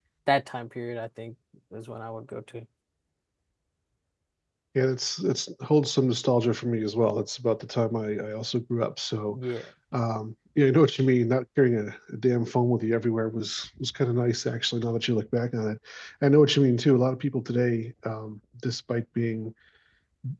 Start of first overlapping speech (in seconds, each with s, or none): none